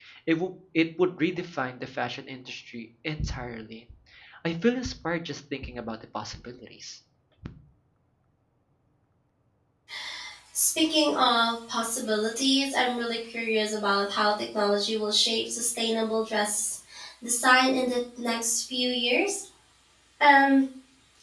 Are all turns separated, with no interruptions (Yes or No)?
Yes